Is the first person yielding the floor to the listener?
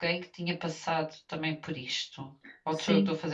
Yes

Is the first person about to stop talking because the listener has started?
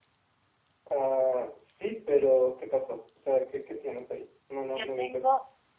Yes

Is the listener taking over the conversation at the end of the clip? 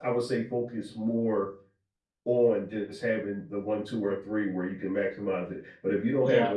No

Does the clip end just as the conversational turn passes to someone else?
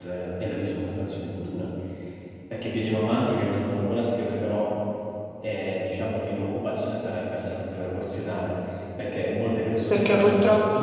Yes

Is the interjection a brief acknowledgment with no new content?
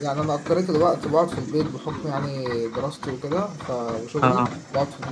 Yes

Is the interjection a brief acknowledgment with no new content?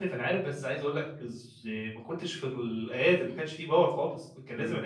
Yes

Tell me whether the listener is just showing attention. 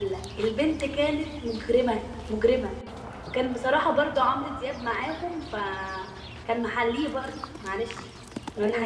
No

